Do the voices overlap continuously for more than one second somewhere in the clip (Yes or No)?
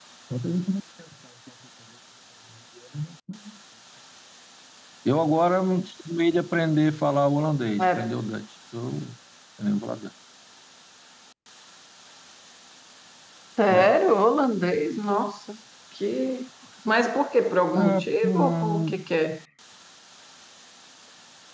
Yes